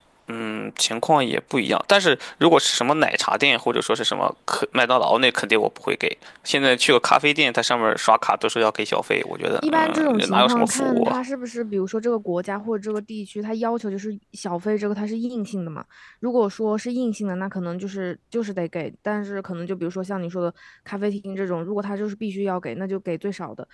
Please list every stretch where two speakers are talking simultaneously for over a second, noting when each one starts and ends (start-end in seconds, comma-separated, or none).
9.6-11.2